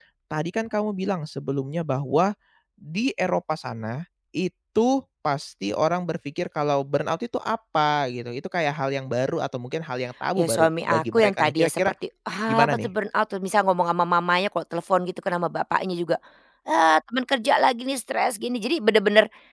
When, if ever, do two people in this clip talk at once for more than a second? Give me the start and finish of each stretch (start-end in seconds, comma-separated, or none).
10.4-11.8